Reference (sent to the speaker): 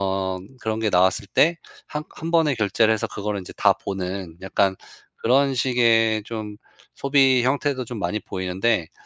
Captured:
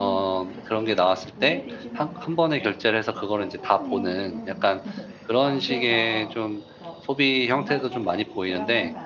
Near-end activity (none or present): present